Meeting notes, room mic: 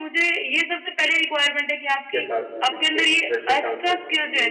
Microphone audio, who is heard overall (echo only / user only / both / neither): both